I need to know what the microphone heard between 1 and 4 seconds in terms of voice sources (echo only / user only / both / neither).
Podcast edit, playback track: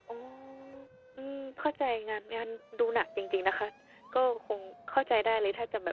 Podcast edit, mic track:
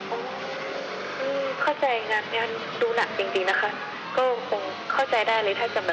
echo only